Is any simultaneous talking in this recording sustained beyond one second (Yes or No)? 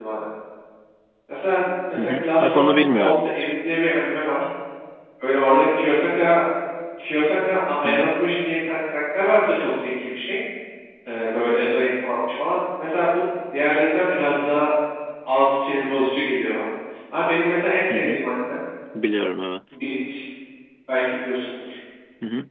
Yes